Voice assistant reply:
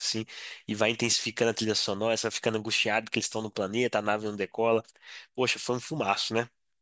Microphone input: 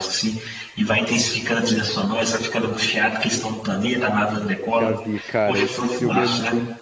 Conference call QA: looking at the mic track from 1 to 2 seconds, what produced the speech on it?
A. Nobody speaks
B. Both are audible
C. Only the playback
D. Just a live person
C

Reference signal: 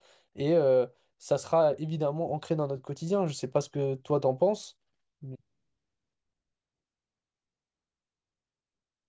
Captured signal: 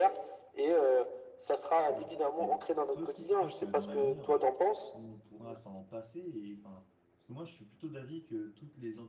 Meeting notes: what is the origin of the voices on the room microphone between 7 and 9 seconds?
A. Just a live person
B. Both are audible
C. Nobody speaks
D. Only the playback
A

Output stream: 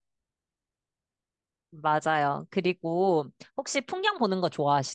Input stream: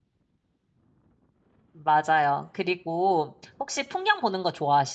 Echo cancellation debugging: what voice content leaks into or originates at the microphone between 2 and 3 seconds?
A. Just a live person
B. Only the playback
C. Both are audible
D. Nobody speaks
B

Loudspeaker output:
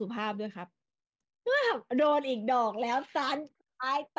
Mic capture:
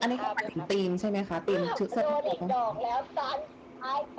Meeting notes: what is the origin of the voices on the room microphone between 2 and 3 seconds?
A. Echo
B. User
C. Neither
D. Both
D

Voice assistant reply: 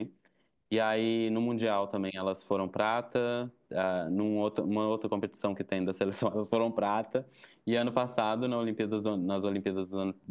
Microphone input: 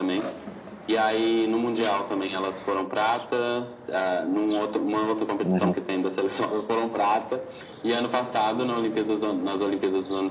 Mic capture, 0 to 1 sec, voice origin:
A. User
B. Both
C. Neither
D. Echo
D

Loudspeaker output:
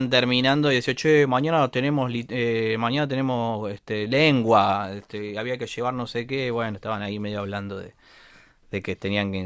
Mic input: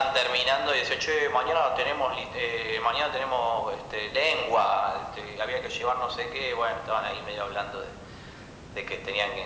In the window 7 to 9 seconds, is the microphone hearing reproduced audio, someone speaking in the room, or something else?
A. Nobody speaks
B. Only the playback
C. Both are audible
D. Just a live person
B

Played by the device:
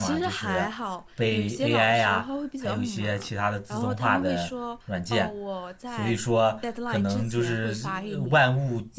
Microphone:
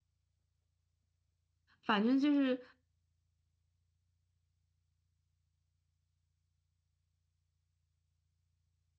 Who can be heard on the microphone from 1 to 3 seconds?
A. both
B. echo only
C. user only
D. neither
C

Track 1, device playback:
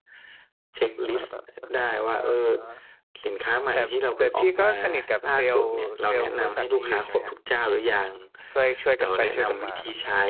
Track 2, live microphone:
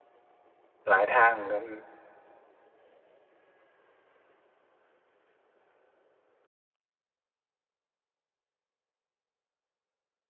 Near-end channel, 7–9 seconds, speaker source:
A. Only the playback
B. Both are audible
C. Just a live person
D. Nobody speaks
D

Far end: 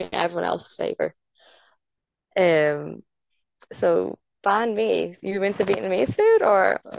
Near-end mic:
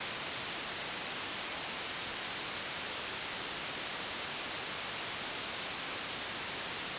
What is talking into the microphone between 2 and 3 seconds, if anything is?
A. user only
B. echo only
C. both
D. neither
D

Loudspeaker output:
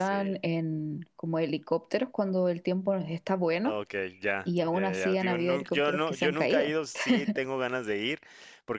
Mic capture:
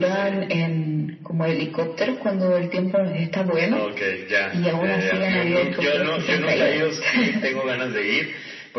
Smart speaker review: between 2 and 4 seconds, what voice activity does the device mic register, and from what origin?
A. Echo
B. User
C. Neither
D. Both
A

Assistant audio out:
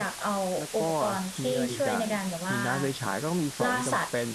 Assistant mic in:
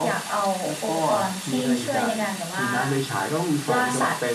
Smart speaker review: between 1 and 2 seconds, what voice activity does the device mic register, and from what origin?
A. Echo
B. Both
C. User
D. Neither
A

